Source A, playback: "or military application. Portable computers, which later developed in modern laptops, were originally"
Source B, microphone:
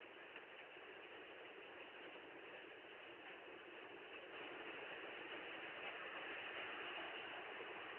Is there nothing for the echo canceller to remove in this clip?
Yes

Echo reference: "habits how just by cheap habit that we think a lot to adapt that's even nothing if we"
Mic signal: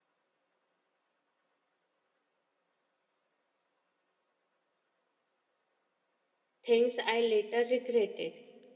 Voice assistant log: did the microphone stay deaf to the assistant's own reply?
Yes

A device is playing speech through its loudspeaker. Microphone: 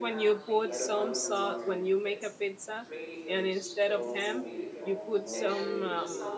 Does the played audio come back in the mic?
Yes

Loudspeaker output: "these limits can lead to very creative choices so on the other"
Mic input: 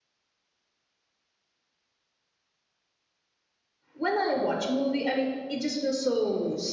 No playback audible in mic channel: Yes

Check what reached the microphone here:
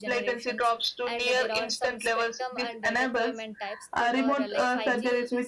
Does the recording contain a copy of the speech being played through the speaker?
Yes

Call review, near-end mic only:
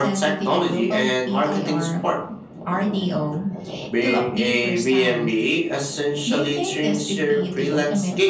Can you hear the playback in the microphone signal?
Yes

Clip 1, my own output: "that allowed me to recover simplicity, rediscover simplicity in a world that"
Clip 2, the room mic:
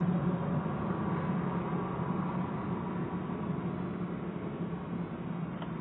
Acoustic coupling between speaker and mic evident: No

